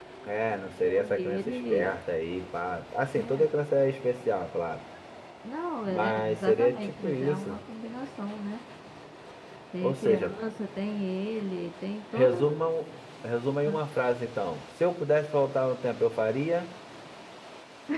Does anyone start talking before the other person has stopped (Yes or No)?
Yes